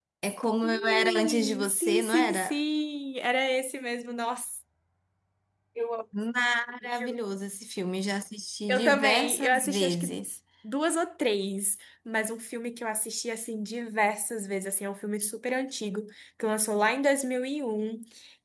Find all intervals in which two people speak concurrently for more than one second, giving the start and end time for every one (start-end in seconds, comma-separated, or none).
0.6-2.6, 8.7-10.2